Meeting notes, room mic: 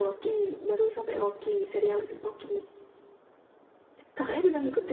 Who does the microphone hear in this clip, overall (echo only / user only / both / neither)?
echo only